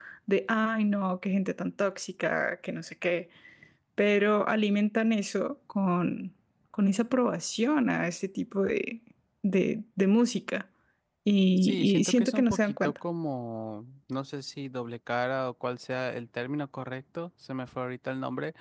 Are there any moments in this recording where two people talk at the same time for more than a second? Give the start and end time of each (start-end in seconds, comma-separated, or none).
11.6-12.9